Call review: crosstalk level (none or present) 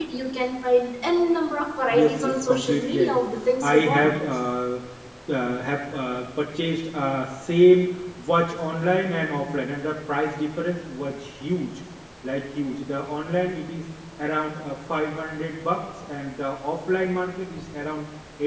present